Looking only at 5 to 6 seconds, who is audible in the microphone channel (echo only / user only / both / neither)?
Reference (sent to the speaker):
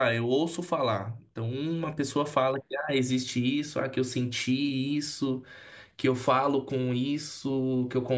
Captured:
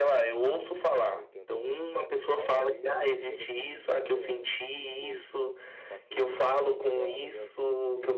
both